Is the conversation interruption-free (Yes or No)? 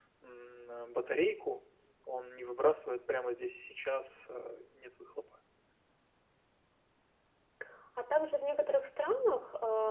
Yes